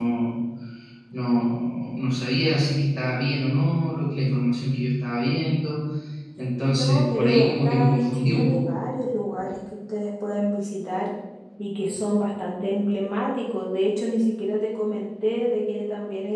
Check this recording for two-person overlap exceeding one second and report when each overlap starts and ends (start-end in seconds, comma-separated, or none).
6.8-8.7